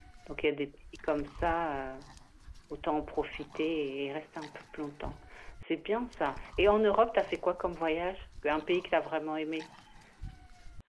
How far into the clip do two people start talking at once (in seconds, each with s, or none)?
none